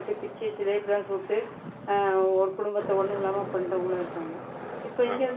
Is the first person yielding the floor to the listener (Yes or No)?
No